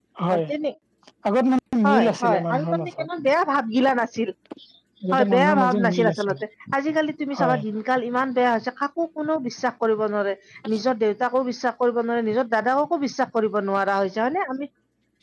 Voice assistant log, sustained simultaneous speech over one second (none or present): present